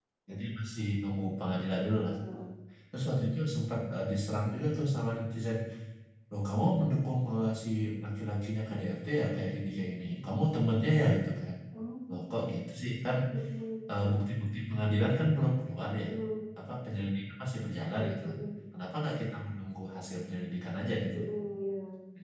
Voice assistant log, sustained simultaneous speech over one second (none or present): none